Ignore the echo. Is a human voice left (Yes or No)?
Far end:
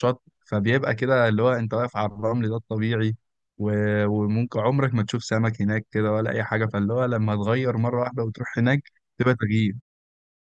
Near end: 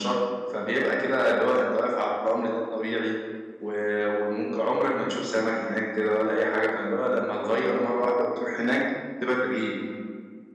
No